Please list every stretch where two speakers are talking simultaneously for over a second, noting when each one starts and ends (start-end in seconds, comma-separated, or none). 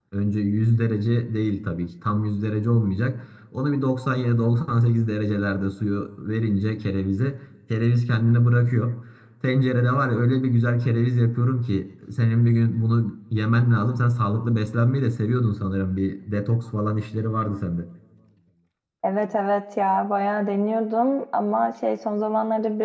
none